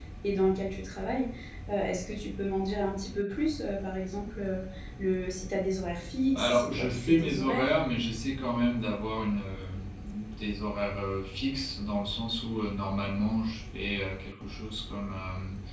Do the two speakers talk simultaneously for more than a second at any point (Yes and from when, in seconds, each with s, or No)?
Yes, from 6.3 s